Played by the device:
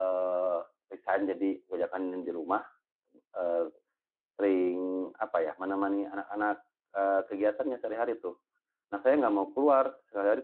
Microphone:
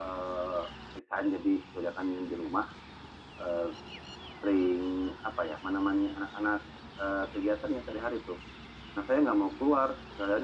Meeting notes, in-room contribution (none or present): none